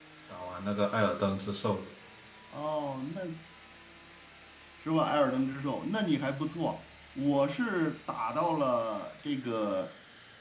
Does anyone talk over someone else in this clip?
No

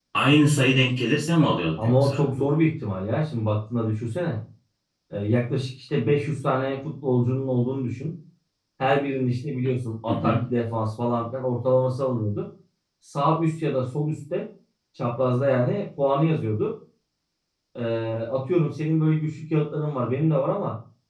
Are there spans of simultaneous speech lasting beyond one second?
No

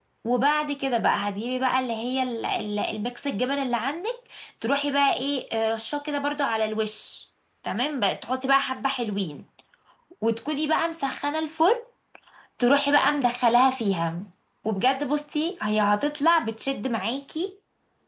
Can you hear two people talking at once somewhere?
No

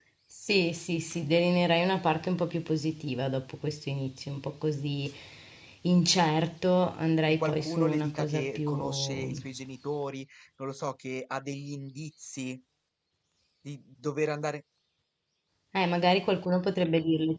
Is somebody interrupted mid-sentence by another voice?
Yes, from 7.3 s

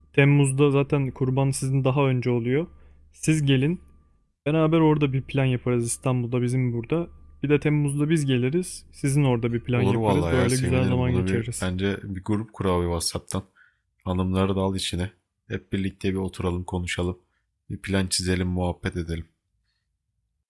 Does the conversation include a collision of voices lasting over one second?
Yes, from 9.7 s

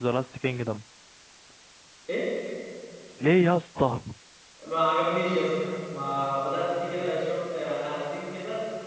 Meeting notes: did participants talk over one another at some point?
No

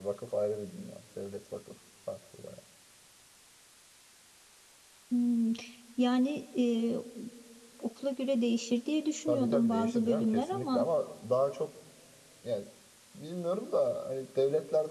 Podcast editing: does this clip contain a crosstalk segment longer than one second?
Yes, from 9.3 s

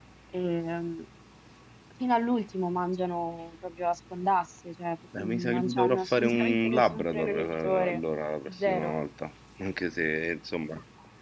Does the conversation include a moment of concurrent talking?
Yes, from 5.2 s

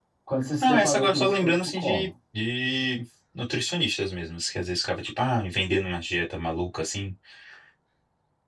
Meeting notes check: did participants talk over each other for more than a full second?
Yes, from 0.6 s

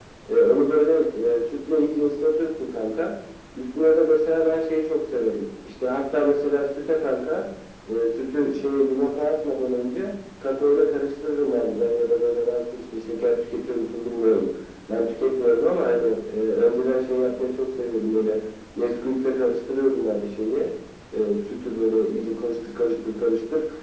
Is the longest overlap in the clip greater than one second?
No

